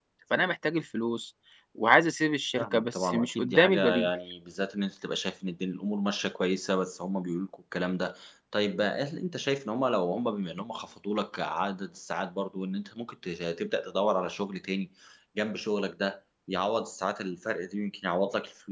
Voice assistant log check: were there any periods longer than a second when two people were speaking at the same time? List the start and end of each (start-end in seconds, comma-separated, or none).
2.6-4.1